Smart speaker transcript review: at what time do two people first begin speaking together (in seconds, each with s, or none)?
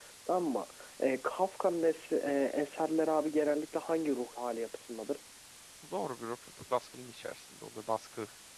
none